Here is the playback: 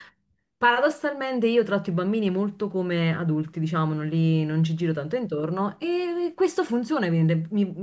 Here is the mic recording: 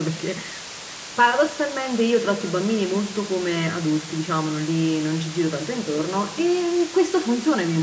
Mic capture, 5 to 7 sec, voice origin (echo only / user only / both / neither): echo only